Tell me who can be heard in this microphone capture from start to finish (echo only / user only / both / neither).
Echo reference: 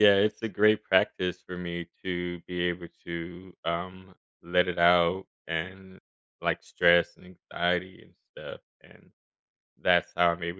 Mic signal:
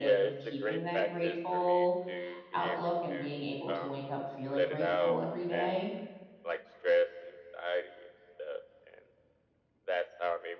both